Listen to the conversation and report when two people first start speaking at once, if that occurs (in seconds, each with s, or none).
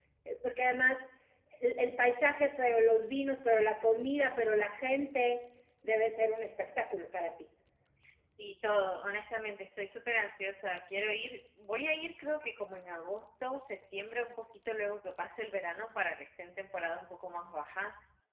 none